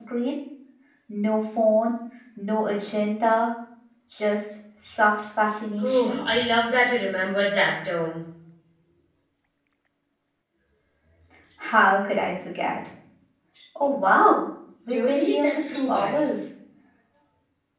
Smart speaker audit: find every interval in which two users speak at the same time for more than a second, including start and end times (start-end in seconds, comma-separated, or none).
14.9-16.2